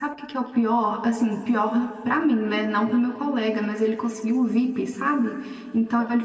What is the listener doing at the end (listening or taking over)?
listening